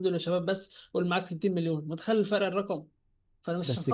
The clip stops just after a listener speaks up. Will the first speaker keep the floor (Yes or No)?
Yes